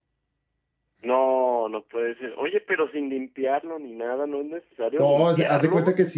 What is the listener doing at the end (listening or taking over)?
taking over